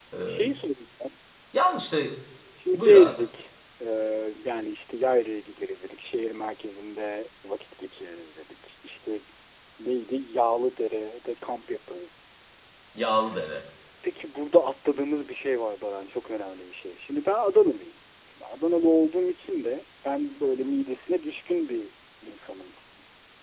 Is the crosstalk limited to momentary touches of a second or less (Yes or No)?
Yes